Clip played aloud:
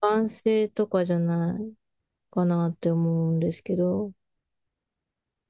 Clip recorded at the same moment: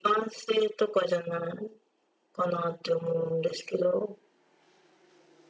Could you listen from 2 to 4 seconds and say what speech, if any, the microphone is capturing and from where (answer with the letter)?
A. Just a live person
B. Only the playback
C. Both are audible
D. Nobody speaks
B